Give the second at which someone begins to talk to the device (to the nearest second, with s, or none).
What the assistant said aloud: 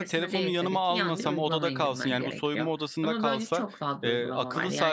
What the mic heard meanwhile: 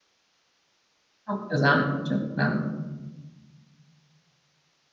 1 s